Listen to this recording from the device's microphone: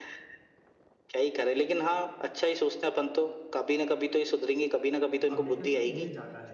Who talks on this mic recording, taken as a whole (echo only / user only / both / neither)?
both